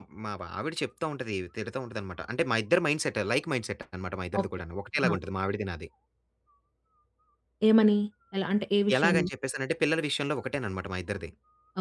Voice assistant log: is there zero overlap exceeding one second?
Yes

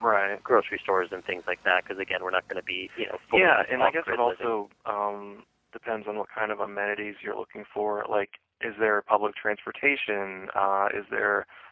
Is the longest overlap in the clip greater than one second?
Yes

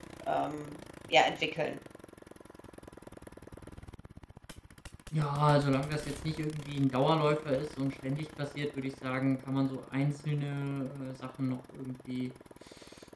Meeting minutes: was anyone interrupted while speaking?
No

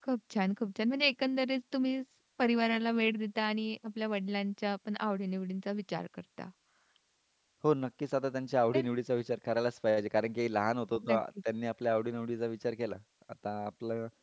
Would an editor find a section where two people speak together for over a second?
No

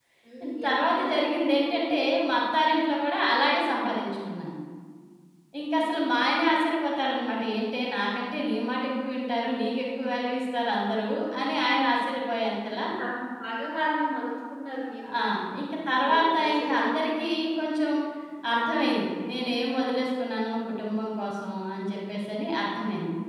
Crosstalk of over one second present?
Yes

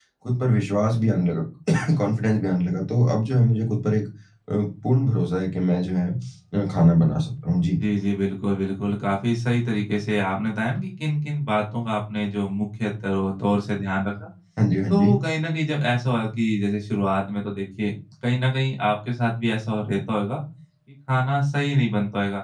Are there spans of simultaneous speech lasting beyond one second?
No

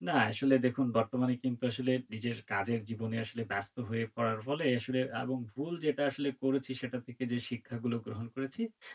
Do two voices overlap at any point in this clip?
No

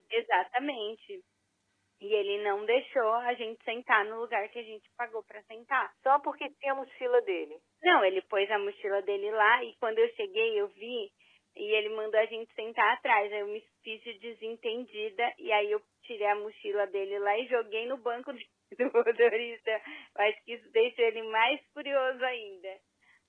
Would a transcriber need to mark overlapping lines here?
No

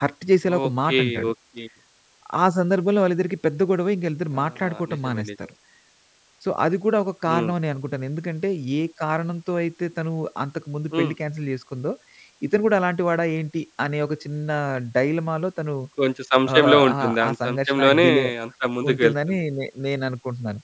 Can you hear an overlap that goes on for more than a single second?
Yes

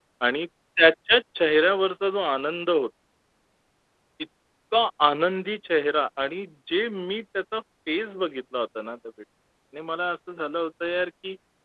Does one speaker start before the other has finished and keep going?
No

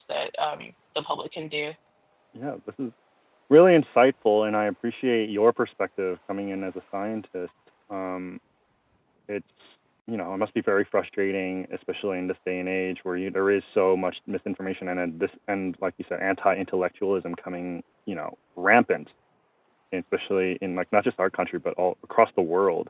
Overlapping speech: No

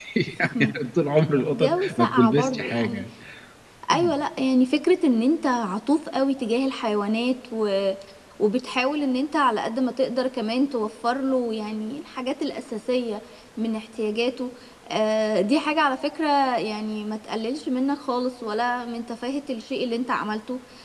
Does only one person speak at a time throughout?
No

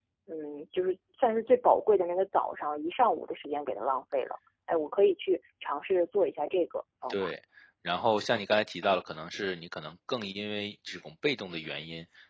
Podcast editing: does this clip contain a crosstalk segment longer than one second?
No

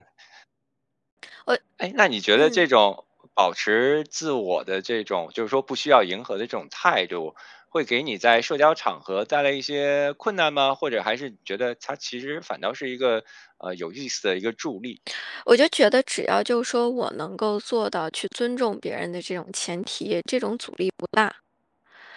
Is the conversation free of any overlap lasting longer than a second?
Yes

